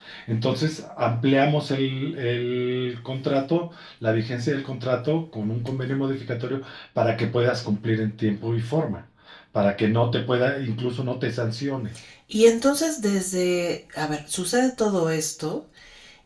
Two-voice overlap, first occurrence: none

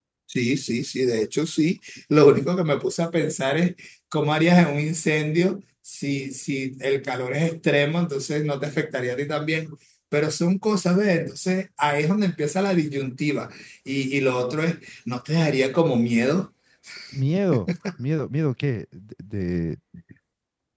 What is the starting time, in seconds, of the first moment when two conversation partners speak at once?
none

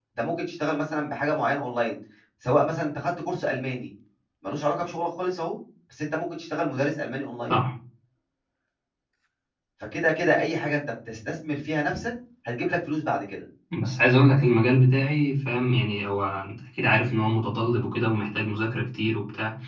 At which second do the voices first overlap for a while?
none

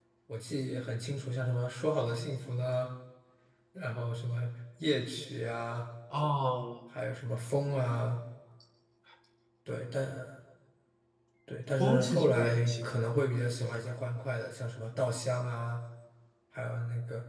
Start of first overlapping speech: 12 s

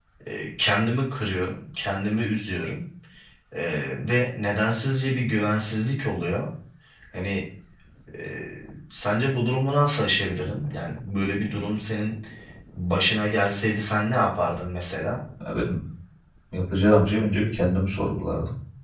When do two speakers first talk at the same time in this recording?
none

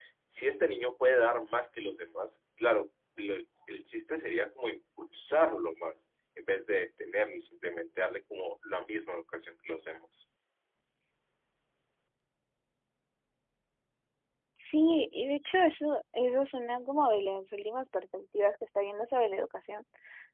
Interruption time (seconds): none

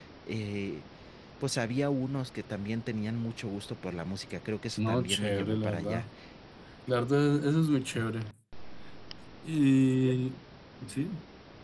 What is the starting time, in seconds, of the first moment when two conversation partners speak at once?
5 s

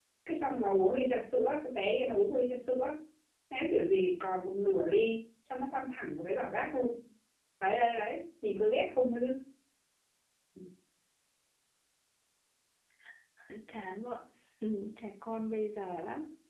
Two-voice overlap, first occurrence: none

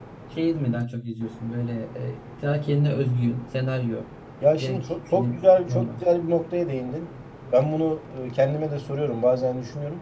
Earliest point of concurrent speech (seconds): 5 s

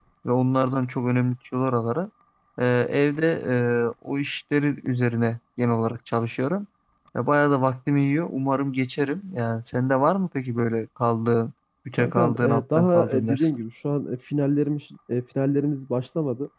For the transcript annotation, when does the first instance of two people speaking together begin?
12 s

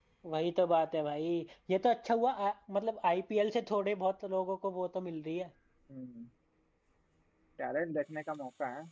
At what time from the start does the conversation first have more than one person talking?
none

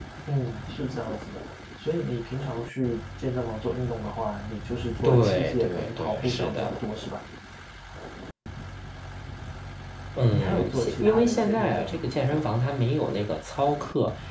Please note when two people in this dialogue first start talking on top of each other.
5 s

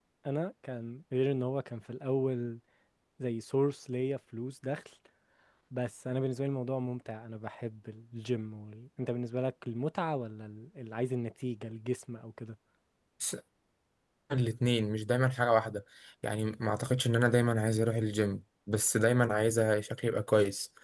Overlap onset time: none

